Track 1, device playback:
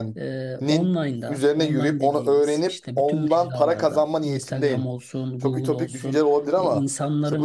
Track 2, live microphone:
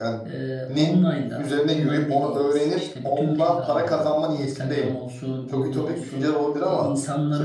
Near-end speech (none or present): none